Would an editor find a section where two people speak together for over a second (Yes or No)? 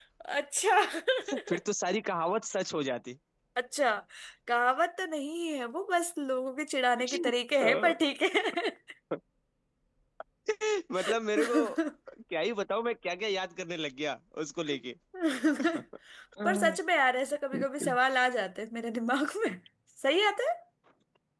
No